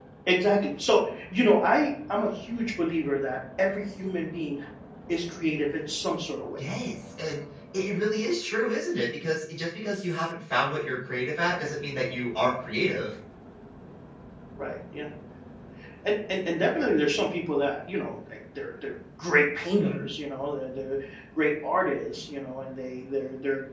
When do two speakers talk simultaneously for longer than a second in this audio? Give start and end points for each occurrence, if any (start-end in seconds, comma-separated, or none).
none